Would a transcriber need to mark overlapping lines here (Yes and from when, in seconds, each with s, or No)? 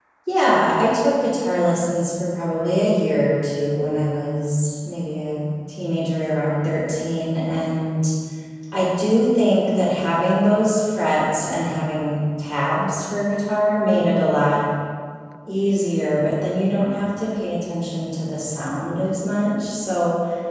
No